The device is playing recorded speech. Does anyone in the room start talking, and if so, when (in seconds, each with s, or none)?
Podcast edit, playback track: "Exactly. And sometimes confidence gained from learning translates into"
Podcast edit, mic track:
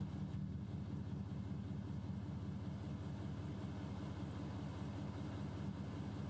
none